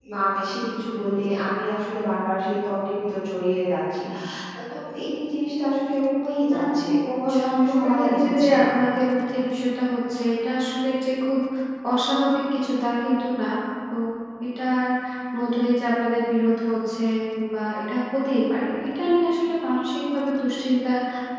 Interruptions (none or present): present